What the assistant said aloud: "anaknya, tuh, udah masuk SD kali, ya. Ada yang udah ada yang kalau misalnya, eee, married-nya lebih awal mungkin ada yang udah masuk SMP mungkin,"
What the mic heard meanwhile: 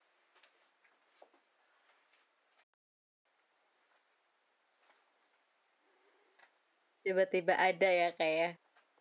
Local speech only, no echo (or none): Tiba-tiba ada, ya, Kak, ya.